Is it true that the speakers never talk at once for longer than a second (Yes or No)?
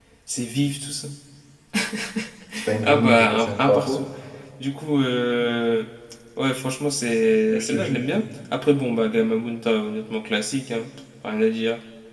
No